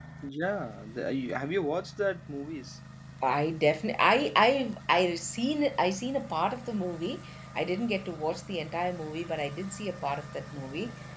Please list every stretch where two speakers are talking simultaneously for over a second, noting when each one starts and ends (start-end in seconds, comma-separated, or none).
none